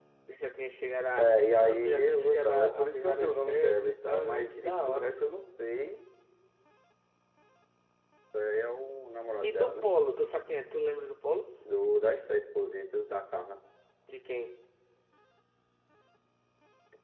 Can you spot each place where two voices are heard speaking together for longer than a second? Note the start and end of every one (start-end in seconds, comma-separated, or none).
1.2-5.3